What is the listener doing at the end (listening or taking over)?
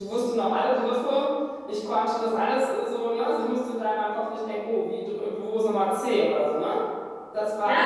listening